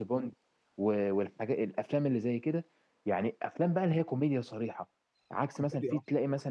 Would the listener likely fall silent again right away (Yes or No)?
Yes